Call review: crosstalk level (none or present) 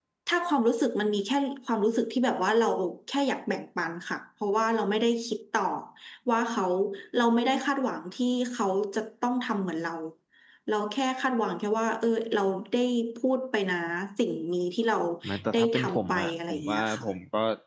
present